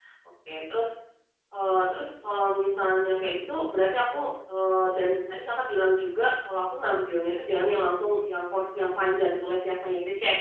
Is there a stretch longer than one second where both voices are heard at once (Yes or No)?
No